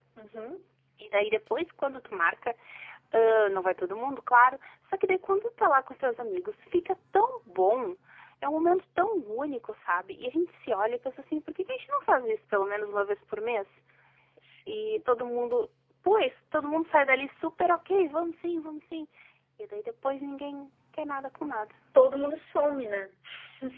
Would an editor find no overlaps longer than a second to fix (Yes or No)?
Yes